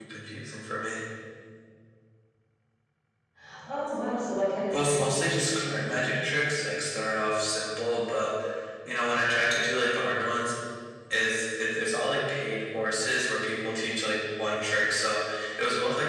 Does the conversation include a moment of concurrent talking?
Yes, from 4.7 s

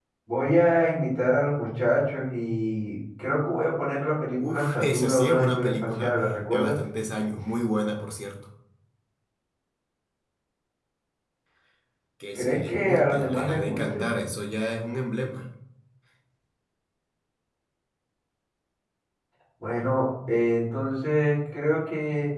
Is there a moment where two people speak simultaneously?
Yes, from 4.4 s

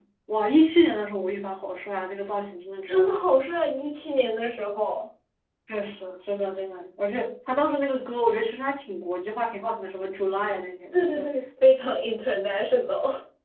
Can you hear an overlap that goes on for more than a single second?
No

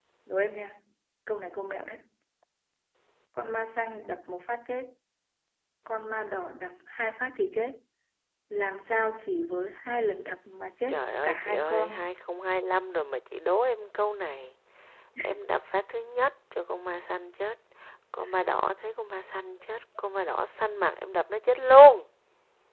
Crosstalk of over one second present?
Yes, from 10.9 s

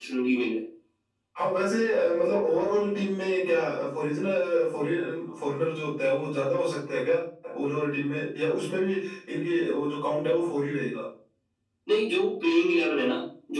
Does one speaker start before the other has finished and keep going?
No

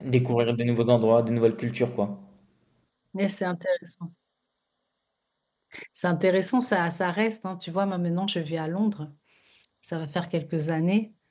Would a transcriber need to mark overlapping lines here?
No

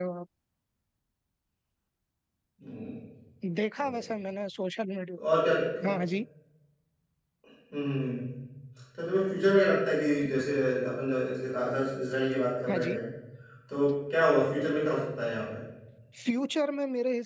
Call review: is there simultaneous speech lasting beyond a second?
No

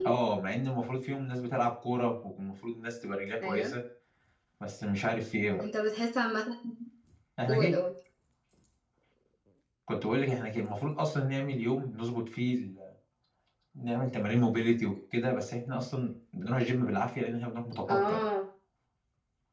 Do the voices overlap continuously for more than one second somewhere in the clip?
No

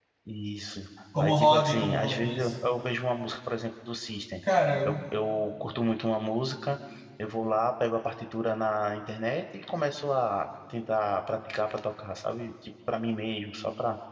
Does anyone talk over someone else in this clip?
Yes, from 1.2 s

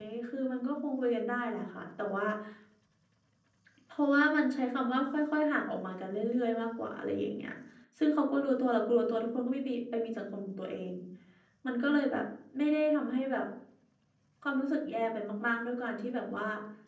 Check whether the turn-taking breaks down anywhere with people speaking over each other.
No

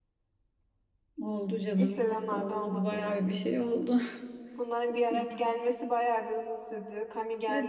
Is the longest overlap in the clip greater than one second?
Yes, from 1.7 s

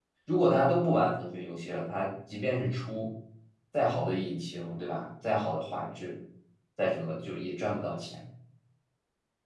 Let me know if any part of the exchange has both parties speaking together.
No

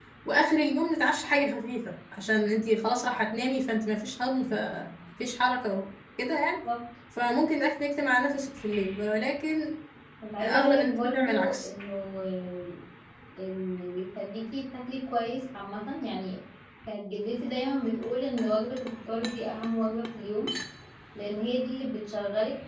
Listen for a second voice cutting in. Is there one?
Yes, from 10.4 s

